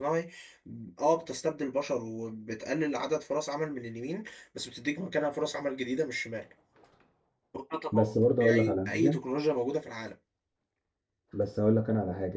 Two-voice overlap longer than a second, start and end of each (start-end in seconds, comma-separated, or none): 7.9-9.2